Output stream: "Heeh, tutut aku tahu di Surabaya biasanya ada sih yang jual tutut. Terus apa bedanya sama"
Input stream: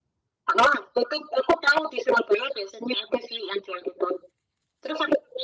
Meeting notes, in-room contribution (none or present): none